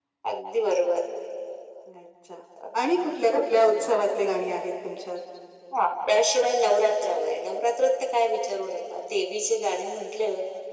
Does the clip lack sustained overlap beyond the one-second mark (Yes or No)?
Yes